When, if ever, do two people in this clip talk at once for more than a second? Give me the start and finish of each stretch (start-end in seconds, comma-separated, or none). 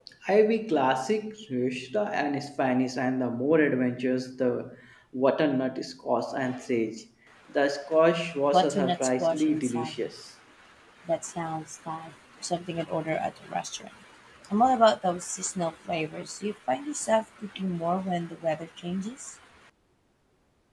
8.5-9.9